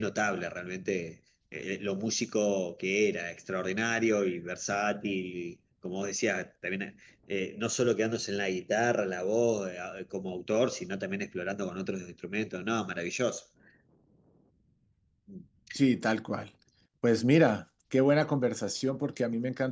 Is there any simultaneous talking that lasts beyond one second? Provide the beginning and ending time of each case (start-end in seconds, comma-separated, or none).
none